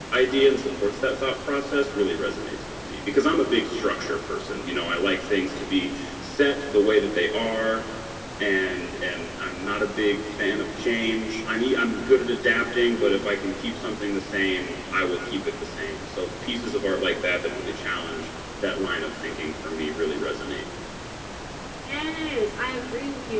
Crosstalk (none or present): none